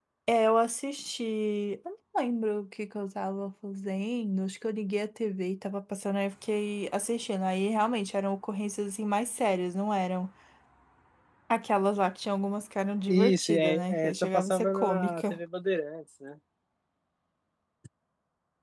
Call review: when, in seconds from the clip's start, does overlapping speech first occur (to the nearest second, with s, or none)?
13 s